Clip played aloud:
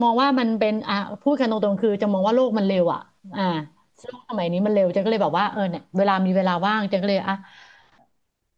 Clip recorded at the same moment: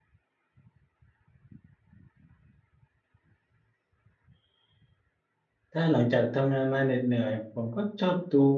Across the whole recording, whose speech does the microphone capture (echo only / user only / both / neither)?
user only